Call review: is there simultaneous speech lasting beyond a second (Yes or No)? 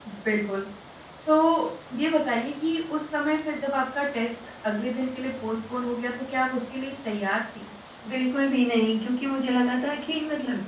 No